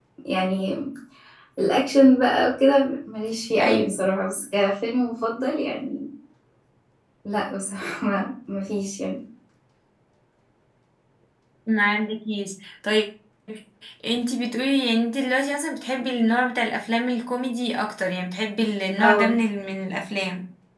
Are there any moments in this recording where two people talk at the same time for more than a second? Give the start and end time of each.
none

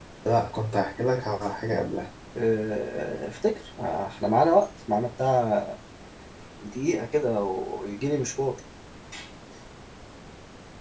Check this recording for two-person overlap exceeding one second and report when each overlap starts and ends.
none

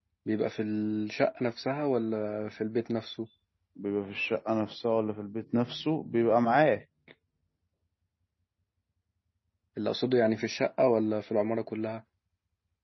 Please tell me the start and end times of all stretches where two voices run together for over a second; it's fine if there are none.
none

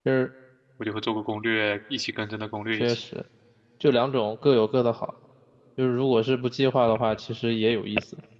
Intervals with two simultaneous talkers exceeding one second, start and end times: none

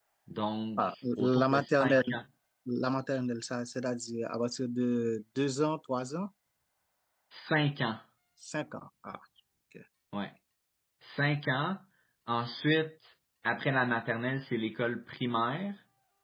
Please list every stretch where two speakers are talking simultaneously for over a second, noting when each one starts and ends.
0.8-2.1

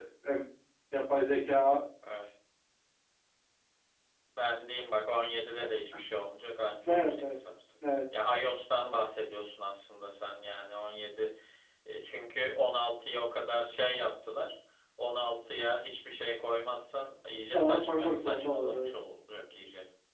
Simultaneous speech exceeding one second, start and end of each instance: 17.5-18.9

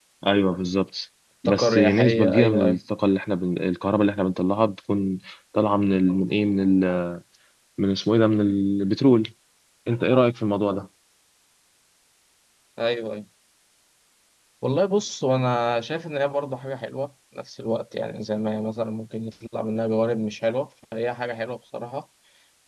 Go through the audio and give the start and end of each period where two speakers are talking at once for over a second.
1.4-2.8

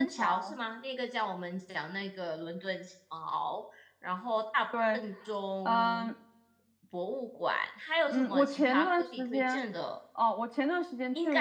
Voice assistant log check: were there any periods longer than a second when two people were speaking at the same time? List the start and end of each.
8.1-9.6

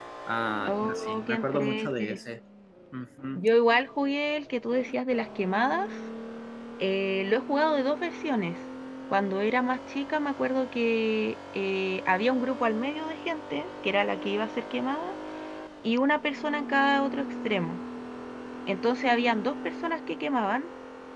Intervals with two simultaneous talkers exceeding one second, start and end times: 0.7-2.2

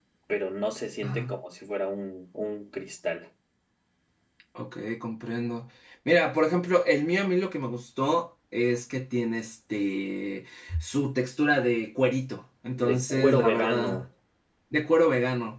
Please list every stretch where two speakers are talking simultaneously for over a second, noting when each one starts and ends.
12.8-14.0

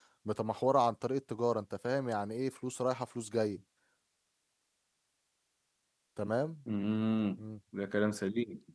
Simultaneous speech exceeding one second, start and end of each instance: none

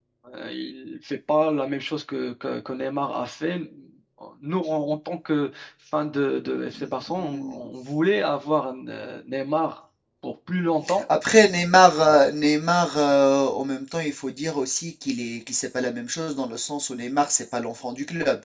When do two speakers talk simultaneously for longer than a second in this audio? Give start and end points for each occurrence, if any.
none

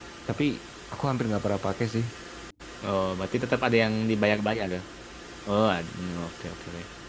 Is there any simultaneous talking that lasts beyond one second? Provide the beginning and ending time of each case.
none

